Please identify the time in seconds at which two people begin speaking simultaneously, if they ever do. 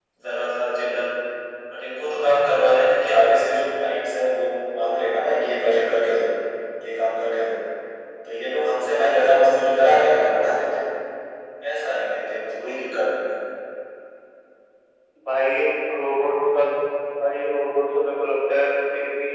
none

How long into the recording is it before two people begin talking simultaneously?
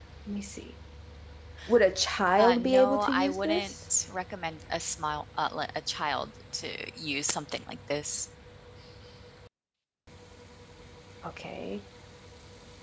2.4 s

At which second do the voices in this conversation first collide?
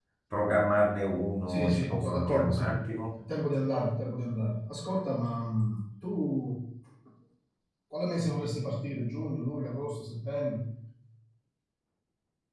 1.5 s

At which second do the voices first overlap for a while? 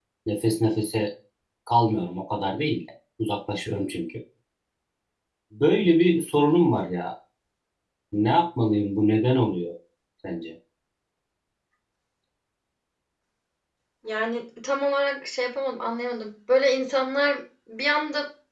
none

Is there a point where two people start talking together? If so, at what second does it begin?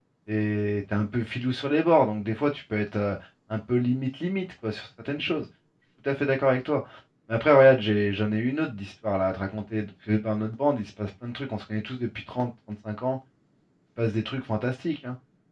none

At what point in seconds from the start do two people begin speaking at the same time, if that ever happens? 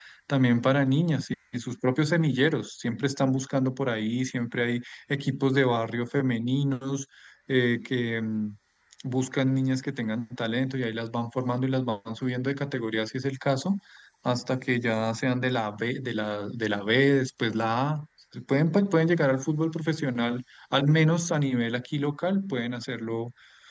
none

